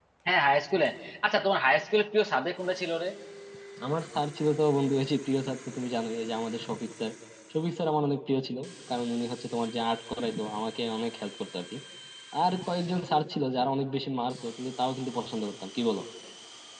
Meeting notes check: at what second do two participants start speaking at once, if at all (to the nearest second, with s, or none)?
none